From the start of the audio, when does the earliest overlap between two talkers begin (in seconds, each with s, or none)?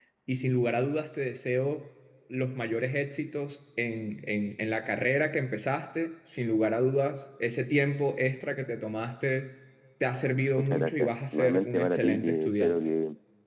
10.6 s